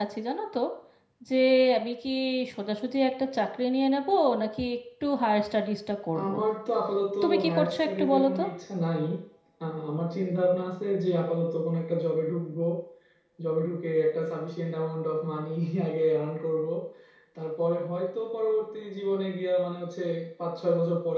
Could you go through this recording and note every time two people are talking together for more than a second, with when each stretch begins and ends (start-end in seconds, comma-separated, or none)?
7.2-8.4